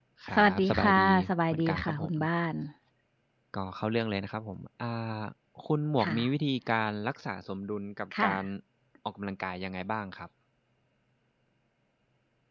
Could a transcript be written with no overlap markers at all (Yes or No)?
No